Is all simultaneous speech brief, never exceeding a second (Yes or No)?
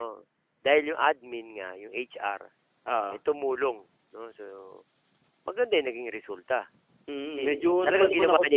No